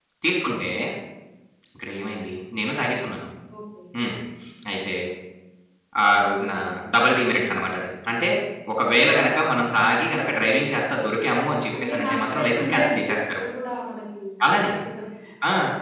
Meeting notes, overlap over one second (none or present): present